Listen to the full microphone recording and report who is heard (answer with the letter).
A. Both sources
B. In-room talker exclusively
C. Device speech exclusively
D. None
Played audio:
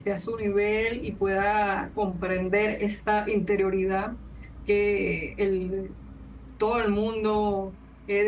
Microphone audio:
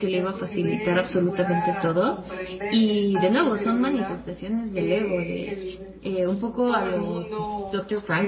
A